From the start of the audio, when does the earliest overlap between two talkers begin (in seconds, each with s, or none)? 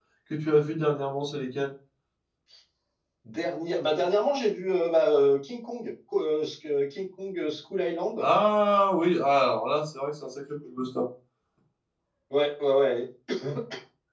none